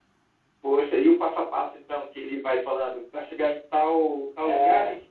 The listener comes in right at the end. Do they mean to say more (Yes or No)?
No